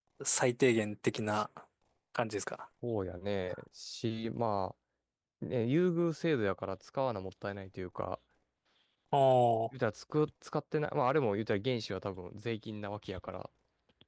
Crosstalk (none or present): none